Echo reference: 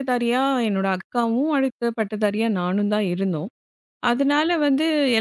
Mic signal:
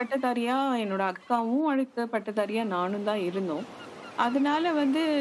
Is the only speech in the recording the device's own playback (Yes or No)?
Yes